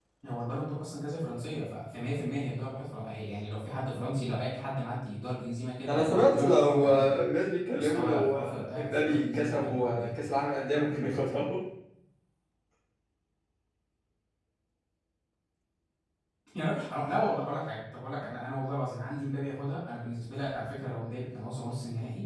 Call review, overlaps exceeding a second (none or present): present